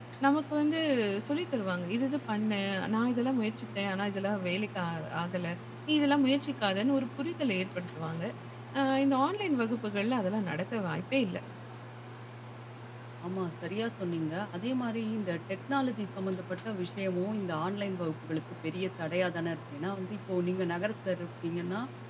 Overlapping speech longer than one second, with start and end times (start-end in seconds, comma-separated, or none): none